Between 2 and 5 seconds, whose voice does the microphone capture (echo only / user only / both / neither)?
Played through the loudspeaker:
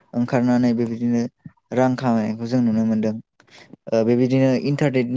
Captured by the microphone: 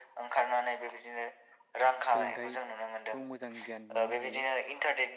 both